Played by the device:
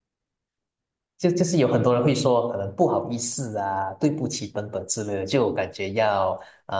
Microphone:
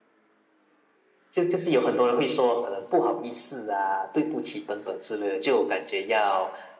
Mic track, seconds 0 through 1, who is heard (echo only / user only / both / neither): neither